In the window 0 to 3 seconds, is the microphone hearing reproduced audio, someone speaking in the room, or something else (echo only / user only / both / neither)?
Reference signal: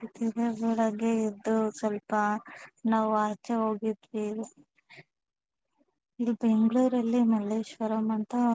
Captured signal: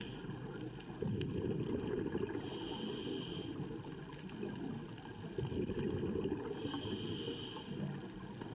neither